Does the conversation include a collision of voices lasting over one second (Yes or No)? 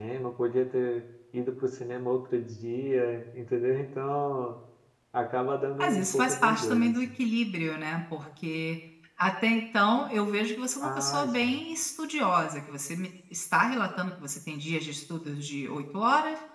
Yes